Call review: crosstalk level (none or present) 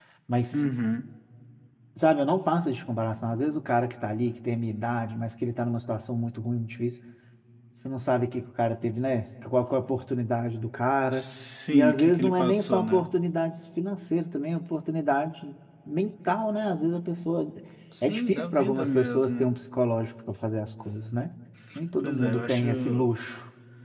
present